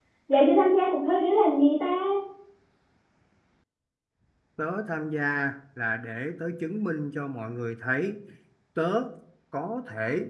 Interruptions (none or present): none